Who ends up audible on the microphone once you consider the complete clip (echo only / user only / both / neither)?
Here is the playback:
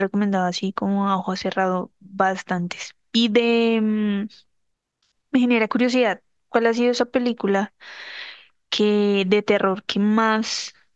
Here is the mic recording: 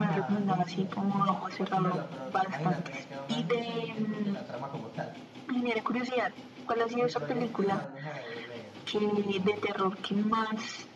both